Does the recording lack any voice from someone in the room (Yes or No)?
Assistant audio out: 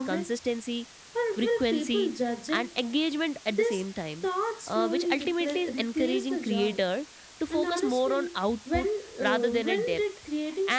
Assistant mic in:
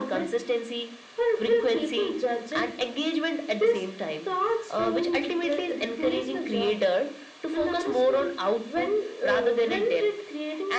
Yes